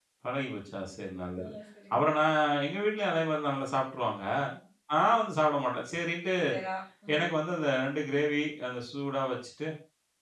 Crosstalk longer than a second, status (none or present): none